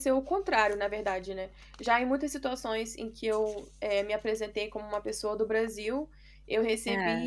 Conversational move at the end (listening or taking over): listening